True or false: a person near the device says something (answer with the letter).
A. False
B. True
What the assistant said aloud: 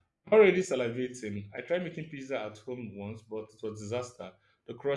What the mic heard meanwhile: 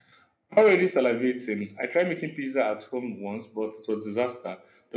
A